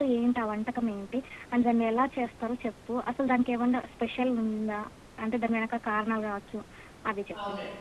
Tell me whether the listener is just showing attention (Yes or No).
No